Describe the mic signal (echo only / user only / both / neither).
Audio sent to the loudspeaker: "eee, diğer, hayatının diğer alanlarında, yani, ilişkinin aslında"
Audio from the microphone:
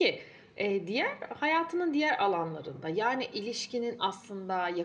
echo only